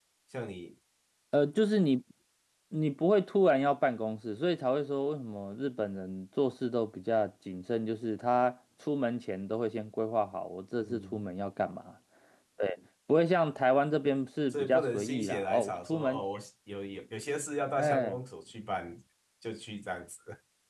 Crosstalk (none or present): present